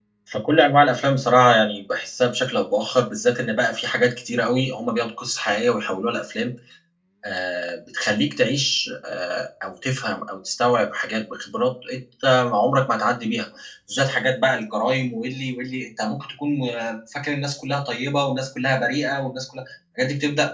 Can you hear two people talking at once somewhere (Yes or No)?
No